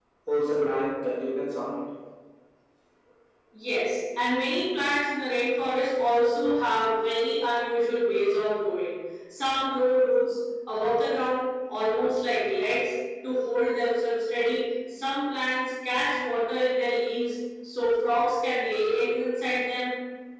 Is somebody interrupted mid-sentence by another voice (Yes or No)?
No